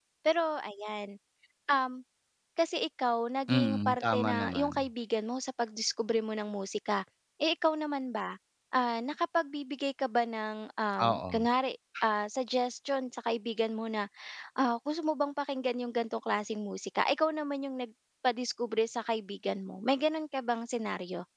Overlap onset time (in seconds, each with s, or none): 3.5 s